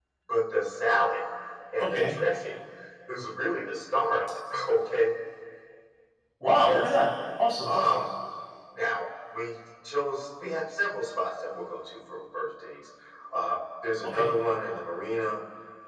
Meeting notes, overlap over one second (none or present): none